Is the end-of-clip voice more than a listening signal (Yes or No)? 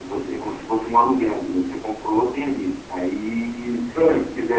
No